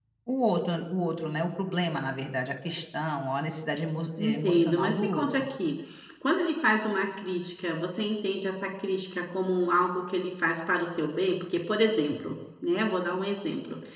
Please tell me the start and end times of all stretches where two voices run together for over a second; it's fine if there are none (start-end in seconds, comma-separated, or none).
4.2-5.5